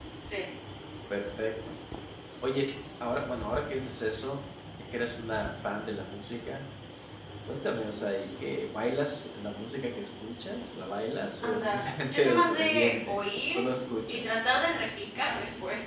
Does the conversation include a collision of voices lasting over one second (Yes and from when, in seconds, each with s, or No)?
Yes, from 11.4 s